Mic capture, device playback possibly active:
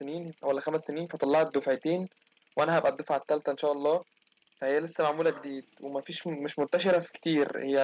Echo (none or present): none